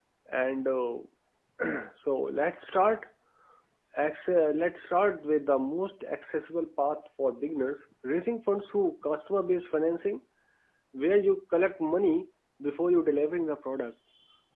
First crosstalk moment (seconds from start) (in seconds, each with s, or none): none